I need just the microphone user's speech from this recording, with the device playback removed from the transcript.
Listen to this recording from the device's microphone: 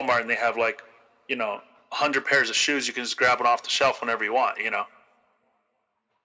none

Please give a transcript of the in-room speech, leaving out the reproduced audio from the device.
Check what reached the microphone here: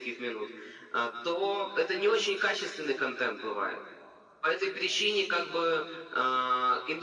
none

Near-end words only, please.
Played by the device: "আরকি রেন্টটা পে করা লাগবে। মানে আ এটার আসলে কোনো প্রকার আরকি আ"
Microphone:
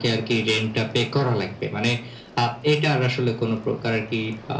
none

